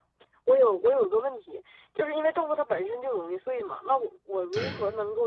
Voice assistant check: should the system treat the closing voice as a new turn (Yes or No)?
No